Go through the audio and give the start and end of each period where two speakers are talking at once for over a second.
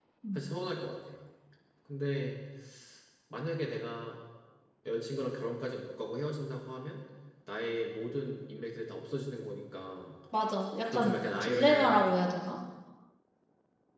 10.9-12.1

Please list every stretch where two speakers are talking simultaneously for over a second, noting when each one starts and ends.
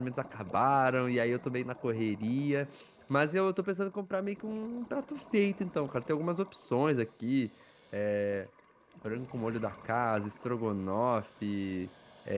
none

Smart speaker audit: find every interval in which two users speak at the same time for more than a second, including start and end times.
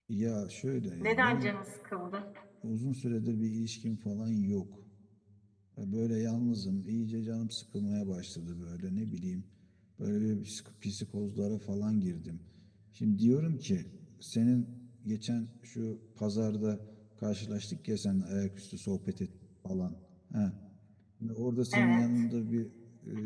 none

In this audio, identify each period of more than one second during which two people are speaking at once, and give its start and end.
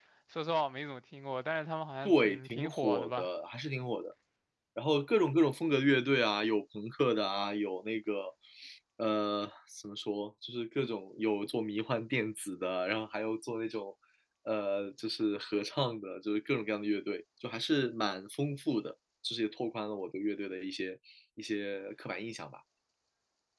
2.0-3.3

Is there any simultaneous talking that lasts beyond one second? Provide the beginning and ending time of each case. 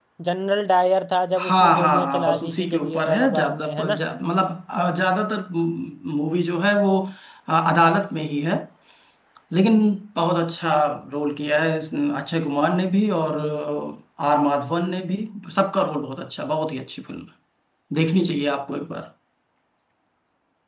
1.4-3.9

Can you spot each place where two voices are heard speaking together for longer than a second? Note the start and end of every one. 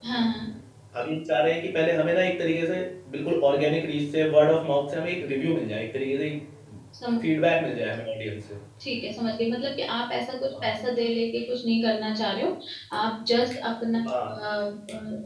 none

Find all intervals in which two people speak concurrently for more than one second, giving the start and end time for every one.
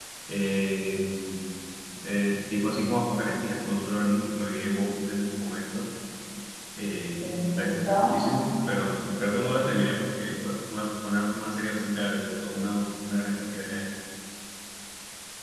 7.2-8.5

